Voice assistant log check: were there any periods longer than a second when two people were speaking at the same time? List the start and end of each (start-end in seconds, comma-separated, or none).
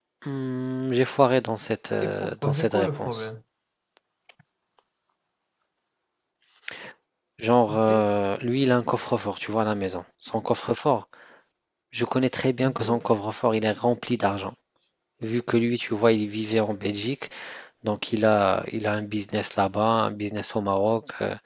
2.0-3.3